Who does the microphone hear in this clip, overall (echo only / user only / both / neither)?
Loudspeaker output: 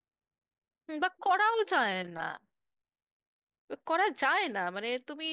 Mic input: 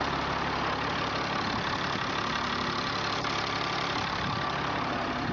neither